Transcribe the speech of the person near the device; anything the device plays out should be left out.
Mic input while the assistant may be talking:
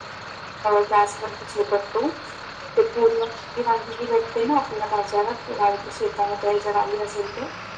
none

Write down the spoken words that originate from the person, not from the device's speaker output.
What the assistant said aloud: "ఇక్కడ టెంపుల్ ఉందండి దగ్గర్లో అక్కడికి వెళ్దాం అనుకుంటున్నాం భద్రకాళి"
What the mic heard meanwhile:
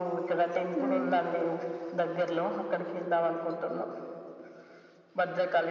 ఉమ్

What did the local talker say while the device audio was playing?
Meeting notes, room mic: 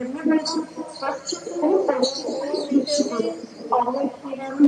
ઓર ઊંઘ ઊંઘ વિશે ભી

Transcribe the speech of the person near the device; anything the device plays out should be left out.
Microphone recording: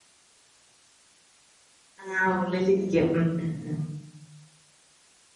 ആഹ് ഉള്ളിലിരിക്കും ഉം ഉം ഉം

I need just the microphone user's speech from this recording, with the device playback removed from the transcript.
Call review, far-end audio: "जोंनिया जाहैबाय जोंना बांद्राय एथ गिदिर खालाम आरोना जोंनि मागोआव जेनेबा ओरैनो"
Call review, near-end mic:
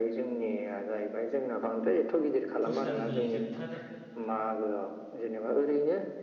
पुस दाननि जोब जोबथा

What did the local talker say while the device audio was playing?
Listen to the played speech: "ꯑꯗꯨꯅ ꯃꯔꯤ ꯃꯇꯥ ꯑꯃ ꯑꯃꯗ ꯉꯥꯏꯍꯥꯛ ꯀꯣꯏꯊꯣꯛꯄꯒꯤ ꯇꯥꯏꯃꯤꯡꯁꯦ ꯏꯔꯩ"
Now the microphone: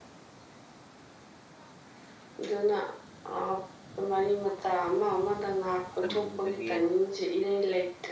ꯆꯝꯕꯤꯕꯗꯒꯤ

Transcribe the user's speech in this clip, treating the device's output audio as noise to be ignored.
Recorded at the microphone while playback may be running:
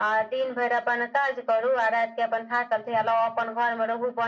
none

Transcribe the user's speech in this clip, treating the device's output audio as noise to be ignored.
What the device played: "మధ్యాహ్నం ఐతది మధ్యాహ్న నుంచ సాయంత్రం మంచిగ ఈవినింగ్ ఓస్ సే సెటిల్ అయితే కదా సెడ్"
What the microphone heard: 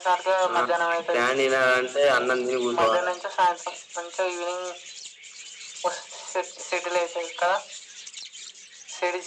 ఆ నీ ప్లాన్ వినాలంటే అన్నం తిని కూర్చోవాలే

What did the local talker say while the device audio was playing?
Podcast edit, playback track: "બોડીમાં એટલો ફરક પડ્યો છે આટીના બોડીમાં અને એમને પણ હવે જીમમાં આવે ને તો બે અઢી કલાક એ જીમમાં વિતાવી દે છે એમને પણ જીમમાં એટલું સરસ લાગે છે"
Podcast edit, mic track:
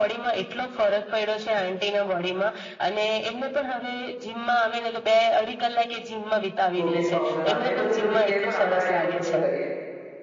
પ્રોટીન પઉડર આવે એ બધું એ લોકો કે પણ આપડા એ બધું નહી કરીએ

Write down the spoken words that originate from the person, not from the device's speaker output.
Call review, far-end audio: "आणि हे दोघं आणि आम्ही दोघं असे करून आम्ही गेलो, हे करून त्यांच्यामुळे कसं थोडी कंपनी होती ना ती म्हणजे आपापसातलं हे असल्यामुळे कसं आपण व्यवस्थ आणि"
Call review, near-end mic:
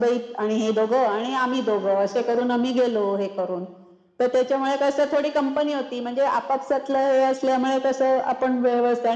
none

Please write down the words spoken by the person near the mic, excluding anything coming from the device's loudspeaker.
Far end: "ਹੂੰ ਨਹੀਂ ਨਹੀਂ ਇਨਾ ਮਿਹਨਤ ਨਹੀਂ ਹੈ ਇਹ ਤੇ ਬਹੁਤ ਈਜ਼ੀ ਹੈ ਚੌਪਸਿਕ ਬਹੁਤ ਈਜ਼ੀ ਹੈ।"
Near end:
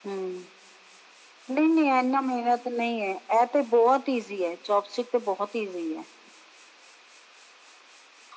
none

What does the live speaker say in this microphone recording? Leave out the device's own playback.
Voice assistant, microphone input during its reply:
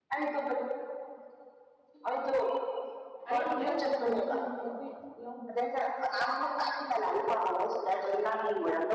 ꯑꯩ ꯑꯩꯒꯤ ꯁꯝꯖꯤꯅꯅꯦ ꯋꯦꯠ ꯑꯝꯇ ꯌꯥꯎꯗꯕ

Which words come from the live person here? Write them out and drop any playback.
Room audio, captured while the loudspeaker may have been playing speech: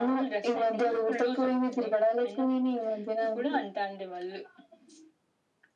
none

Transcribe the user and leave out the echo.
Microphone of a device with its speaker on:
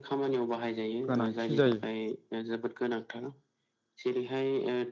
गोनांथि जायो

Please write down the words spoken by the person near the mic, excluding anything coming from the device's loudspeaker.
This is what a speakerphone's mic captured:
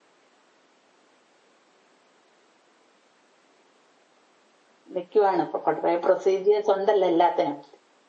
നിക്കുവാണ് കുറേ പ്രൊസീജിയേഴസ് ഉണ്ടല്ലോ എല്ലാത്തിനും

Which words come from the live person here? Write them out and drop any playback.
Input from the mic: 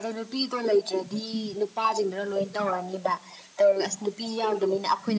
none

